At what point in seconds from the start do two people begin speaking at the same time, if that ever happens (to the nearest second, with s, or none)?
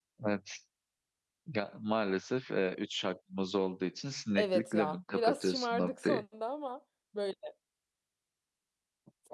4 s